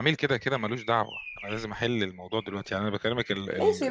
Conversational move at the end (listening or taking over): taking over